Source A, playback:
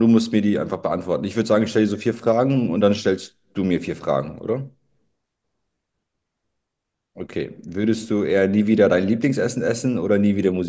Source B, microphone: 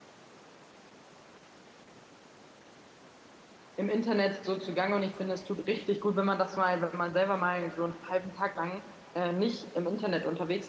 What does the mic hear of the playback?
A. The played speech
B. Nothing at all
B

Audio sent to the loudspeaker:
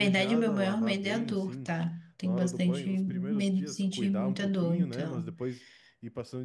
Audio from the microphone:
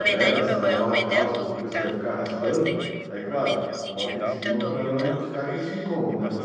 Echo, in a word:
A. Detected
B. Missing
A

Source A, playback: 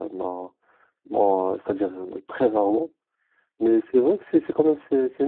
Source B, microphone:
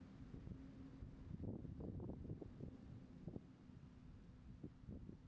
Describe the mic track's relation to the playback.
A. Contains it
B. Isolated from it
B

